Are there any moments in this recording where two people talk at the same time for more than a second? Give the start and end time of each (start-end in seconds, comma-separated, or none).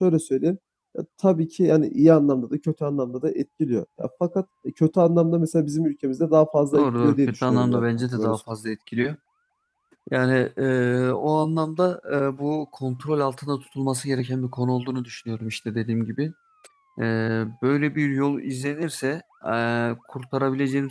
6.7-8.4